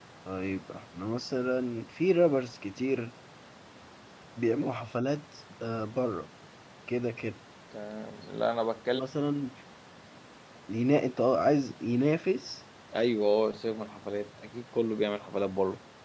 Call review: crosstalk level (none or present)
none